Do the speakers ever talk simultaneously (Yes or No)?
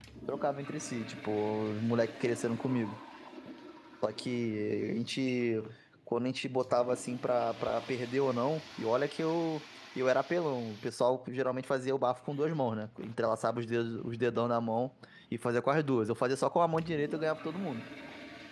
No